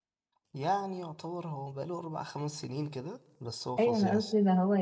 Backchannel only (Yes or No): No